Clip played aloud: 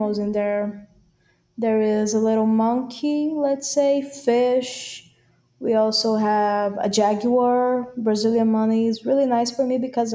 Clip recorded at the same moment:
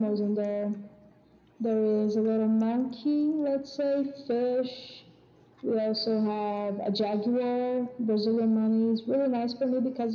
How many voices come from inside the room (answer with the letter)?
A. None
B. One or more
A